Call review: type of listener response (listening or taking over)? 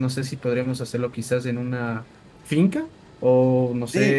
taking over